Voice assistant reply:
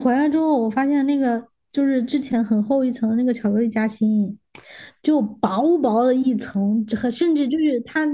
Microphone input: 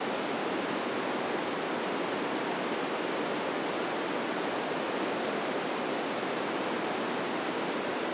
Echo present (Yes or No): No